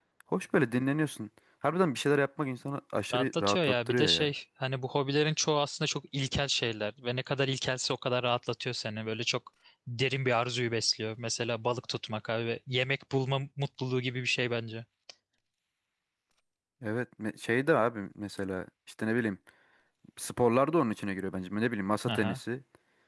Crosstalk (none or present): present